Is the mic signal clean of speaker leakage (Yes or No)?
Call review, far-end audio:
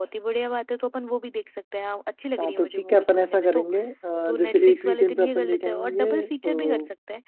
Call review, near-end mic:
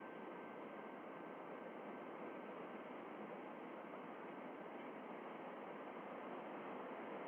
Yes